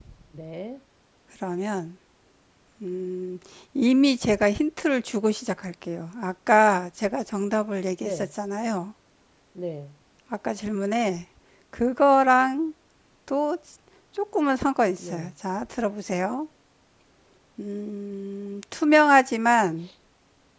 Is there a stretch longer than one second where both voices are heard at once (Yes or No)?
No